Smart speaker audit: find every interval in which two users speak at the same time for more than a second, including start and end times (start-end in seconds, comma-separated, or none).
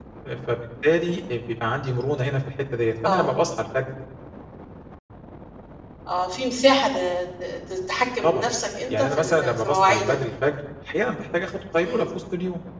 8.9-10.2